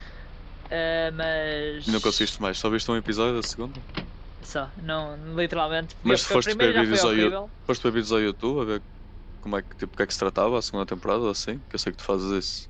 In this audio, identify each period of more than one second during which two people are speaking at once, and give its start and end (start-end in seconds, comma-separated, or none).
6.0-7.3